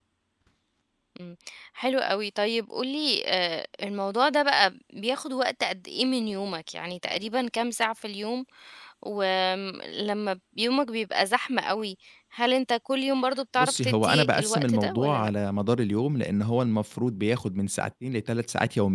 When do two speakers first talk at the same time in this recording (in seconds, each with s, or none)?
13.6 s